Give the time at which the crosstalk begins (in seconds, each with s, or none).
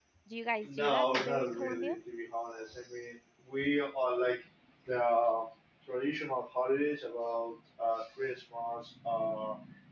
0.6 s